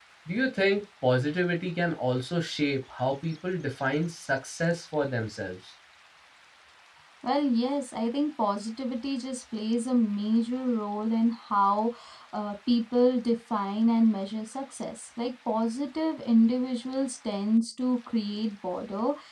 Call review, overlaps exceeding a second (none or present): none